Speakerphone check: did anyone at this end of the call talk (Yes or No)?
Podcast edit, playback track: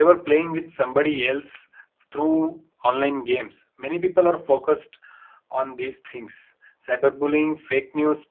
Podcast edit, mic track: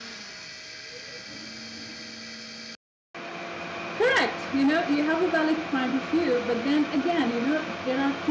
Yes